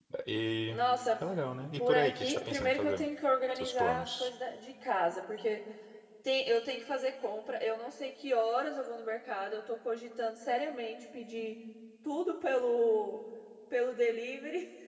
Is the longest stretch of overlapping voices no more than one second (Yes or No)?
No